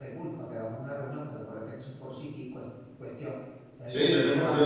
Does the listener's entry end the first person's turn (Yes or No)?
Yes